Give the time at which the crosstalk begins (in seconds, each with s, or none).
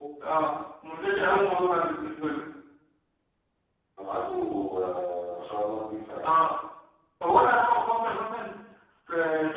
none